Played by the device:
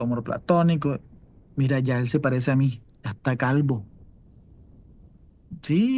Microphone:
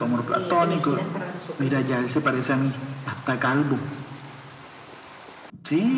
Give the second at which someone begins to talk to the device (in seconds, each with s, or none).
0.3 s